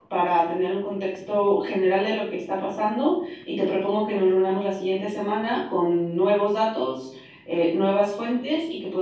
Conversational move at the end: listening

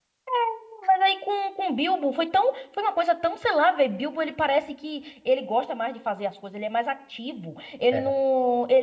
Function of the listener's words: listening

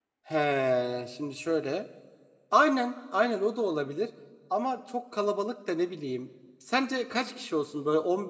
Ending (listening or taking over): listening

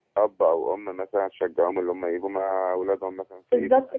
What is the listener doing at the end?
taking over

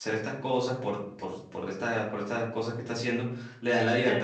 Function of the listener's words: taking over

